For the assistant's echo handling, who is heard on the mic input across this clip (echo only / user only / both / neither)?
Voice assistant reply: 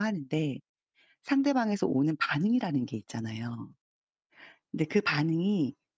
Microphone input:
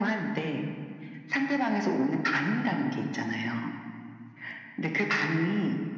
echo only